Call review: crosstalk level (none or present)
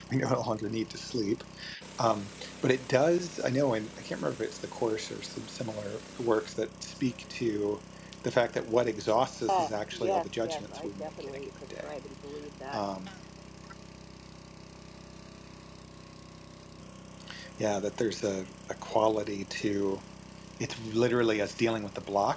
present